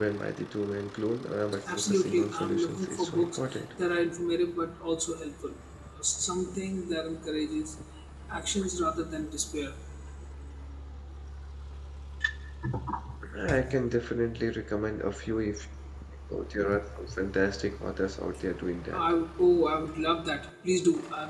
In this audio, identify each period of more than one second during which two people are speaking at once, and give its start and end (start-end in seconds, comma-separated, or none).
1.7-3.6